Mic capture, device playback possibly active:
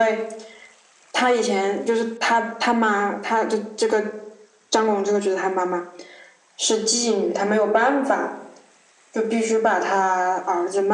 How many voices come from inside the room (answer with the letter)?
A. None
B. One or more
A